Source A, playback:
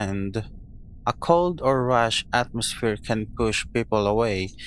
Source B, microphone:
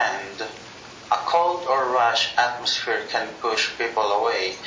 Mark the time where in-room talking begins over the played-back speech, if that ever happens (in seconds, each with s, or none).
none